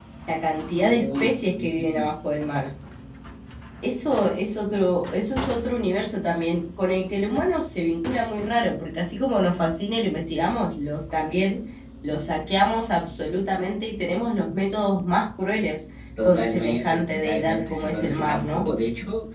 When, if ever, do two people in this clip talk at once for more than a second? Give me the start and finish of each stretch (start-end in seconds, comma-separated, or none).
0.8-2.1, 16.2-18.7